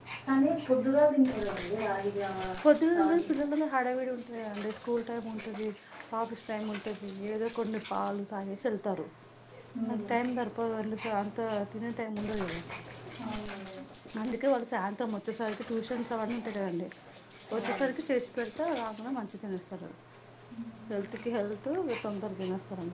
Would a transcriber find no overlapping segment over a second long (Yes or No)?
Yes